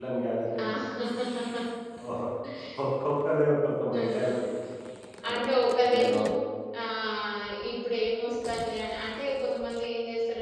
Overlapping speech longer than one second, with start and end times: none

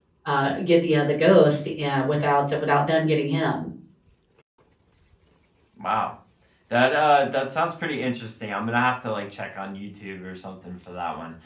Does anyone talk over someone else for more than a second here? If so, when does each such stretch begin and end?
none

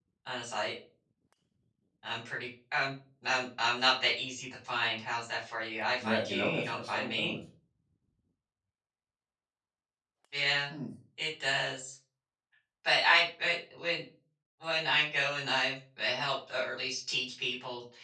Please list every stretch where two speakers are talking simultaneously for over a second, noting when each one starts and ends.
6.0-7.3

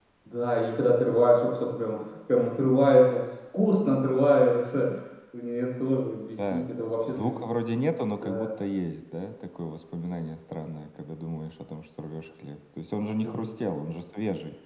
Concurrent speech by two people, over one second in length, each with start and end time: none

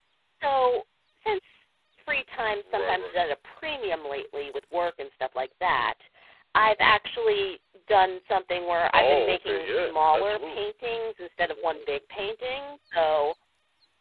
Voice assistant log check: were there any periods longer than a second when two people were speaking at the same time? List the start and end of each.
8.9-10.6

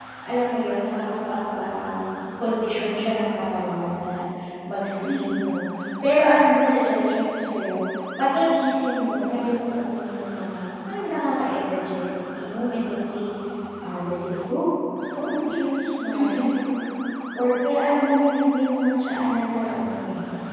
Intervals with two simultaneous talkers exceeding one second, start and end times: 15.2-16.5

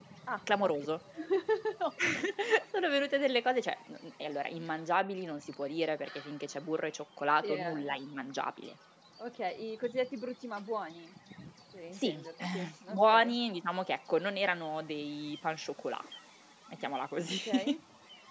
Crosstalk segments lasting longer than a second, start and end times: 11.9-13.3

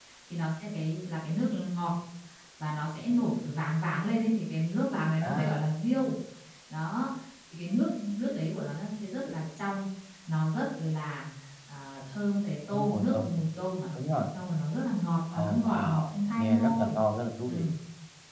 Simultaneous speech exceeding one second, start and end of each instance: 15.3-17.0

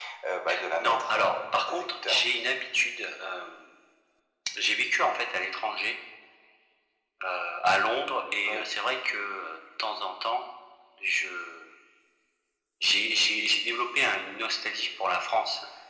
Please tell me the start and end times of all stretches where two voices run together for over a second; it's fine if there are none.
0.8-2.2

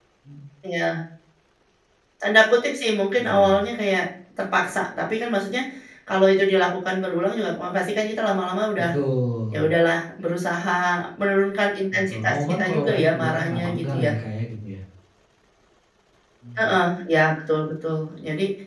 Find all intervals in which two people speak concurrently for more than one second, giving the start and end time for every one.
12.1-14.1

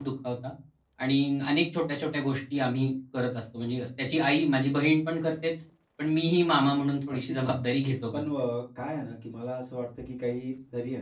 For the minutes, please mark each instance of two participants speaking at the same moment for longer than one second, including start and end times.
none

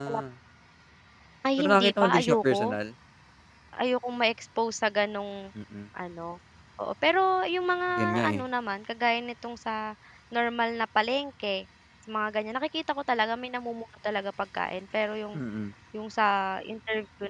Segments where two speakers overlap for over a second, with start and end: 1.6-2.8

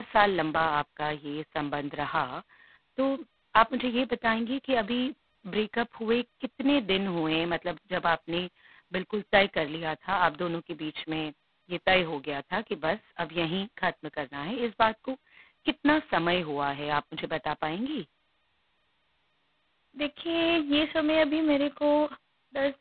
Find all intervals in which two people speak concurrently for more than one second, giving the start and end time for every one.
none

